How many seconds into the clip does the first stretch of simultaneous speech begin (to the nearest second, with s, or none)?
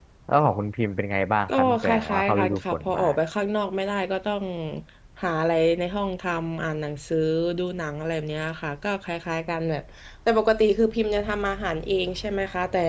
1 s